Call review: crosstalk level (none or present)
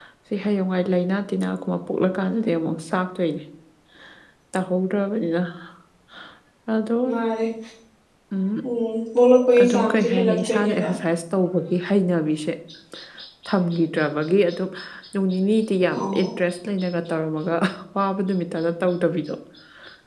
present